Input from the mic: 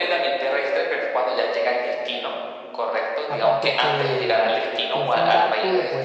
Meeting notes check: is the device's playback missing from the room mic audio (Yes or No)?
No